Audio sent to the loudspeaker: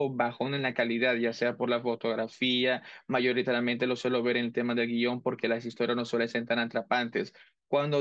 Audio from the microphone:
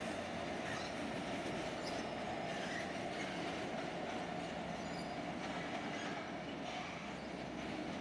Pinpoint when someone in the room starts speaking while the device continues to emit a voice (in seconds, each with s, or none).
none